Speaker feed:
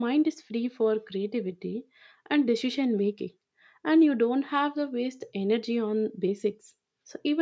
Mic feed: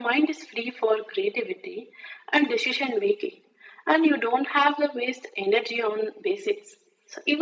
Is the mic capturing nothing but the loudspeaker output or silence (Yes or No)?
Yes